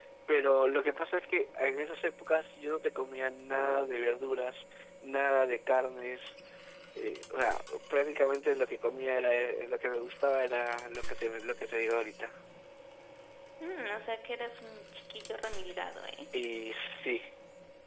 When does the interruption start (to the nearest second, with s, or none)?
none